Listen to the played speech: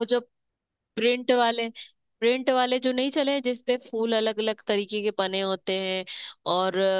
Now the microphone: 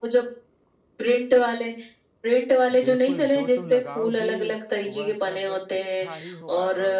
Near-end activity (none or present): present